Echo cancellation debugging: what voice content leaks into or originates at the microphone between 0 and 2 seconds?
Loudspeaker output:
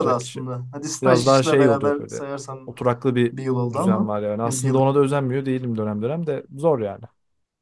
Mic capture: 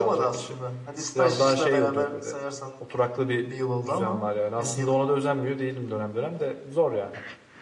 echo only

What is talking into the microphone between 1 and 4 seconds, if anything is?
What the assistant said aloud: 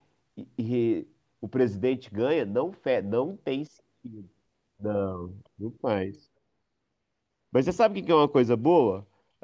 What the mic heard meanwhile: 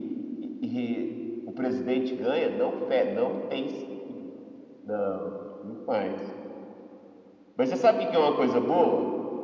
echo only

